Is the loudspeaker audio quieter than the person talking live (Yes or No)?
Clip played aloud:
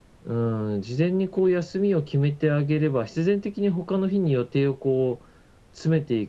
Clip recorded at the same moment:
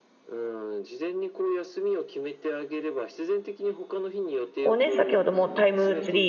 Yes